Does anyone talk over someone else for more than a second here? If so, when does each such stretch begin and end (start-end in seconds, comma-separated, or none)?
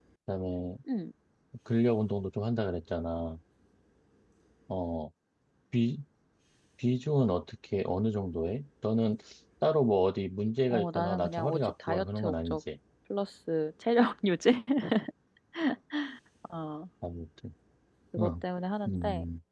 10.7-12.6